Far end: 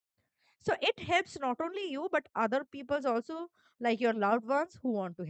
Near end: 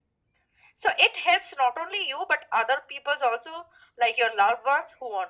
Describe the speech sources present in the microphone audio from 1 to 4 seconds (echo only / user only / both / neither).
echo only